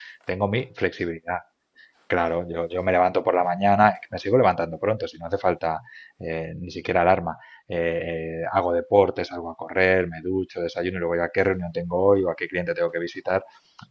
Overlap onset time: none

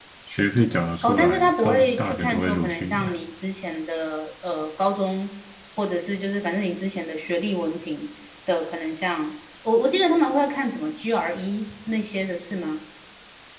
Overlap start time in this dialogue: 1.0 s

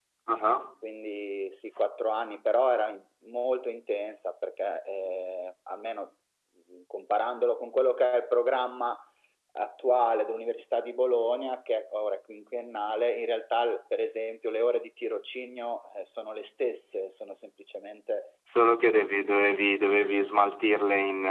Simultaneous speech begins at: none

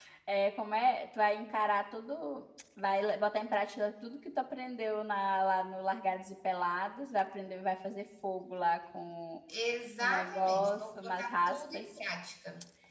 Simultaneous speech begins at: 10.0 s

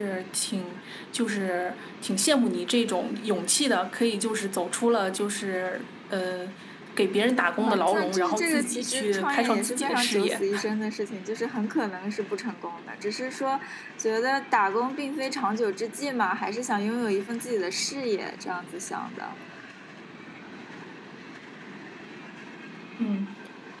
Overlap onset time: 7.6 s

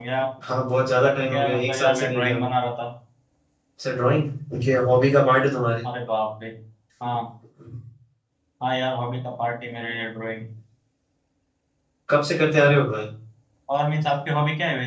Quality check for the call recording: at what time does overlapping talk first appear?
0.9 s

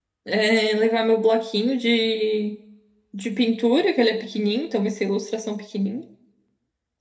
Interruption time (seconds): none

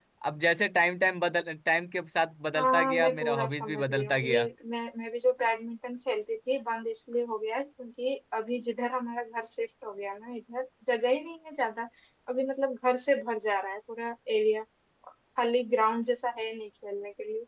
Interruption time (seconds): 2.5 s

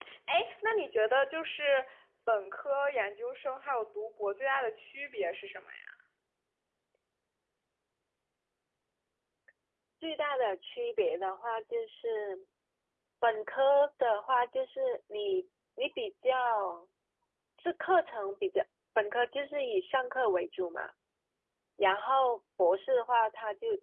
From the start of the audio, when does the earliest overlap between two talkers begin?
none

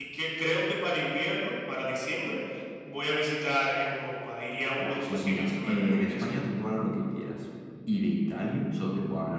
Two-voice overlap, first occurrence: 4.8 s

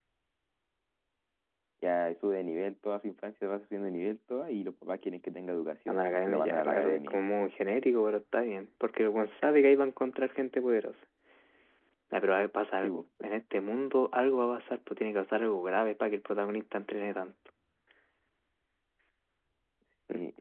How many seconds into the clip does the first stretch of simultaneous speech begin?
5.9 s

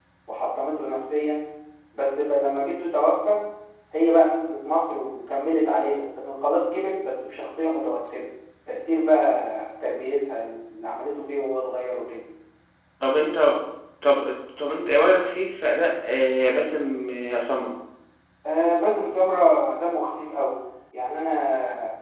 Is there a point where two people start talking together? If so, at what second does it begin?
none

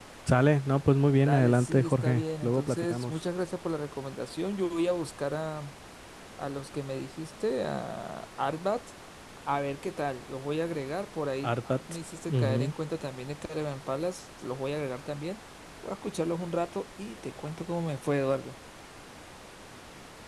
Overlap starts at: 1.2 s

